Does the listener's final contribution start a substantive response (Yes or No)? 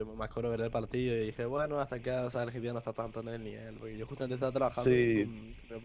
No